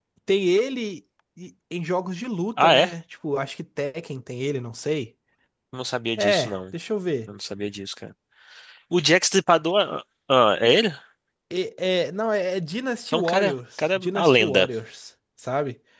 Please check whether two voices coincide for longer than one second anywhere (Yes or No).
Yes